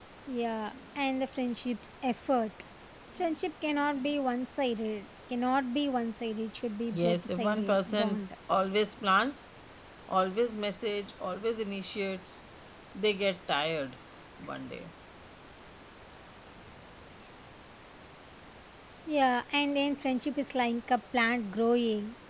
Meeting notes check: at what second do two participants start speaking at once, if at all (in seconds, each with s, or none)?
6.9 s